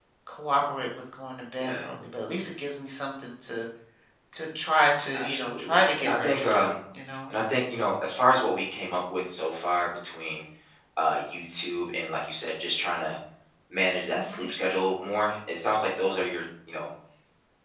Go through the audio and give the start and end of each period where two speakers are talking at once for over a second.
5.1-6.7

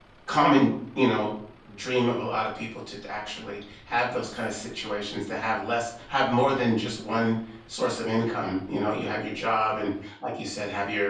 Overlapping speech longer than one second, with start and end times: none

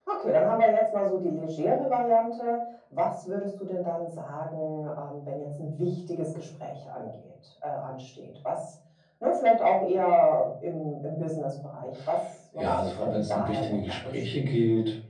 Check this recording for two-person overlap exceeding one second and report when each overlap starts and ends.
12.6-14.5

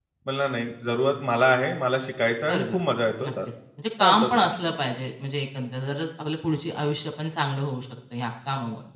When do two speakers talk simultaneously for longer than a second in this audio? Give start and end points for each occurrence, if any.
none

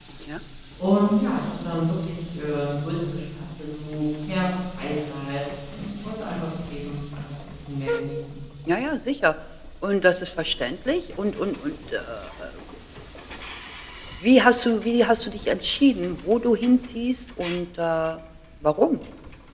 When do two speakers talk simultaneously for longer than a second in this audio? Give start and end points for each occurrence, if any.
none

